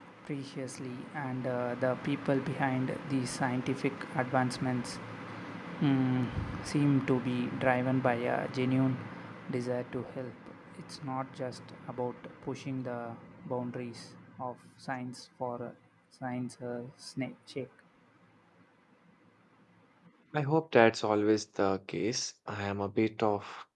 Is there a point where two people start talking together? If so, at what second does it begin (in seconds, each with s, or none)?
none